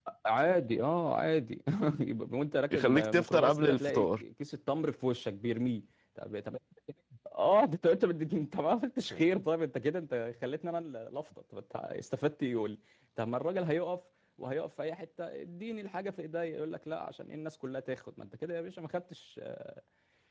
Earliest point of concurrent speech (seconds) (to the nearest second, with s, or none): 3 s